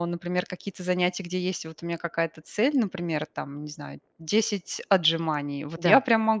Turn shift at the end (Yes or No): Yes